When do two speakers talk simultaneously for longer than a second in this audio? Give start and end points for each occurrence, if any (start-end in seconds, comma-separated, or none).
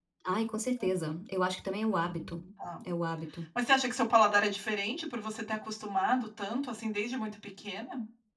none